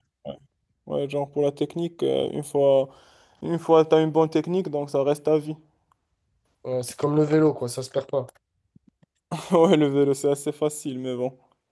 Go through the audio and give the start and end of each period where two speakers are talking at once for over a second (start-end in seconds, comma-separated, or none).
none